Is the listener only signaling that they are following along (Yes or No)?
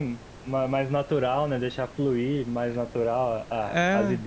Yes